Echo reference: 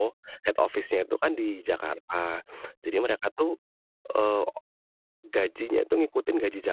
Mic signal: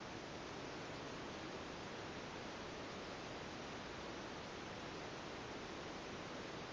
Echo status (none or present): none